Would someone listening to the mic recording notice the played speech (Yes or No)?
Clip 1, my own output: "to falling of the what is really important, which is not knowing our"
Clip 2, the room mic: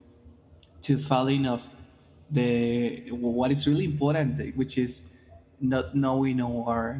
Yes